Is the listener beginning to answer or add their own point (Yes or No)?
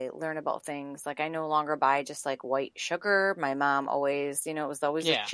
No